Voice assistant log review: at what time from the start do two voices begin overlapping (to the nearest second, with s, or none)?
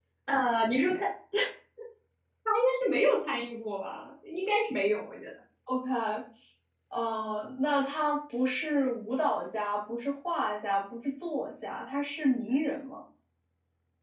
none